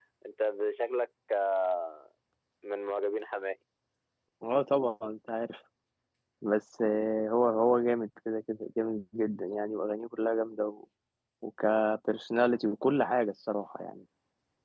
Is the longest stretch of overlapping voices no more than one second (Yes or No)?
Yes